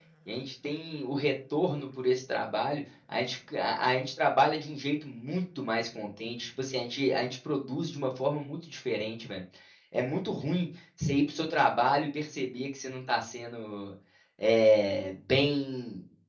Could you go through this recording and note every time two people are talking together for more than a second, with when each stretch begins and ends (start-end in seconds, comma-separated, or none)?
none